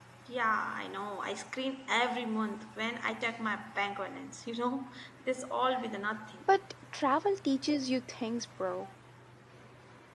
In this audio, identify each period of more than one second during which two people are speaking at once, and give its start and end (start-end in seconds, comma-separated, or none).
none